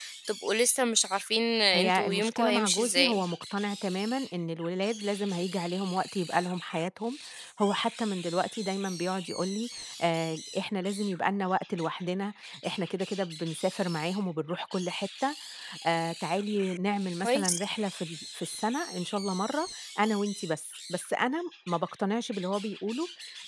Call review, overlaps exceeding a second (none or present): present